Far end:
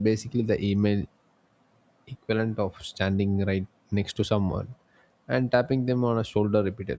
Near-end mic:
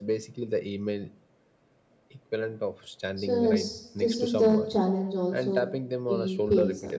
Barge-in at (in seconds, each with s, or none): 3.1 s